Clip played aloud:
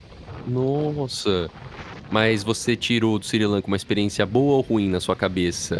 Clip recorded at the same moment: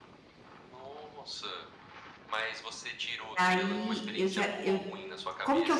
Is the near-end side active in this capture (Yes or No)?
Yes